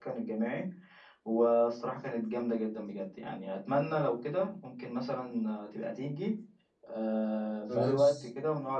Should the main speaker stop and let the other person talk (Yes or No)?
No